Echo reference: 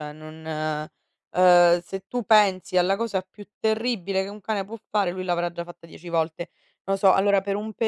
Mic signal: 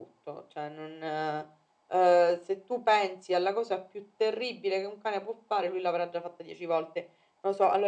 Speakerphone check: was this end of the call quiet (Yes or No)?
Yes